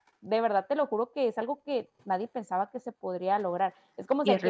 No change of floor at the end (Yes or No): Yes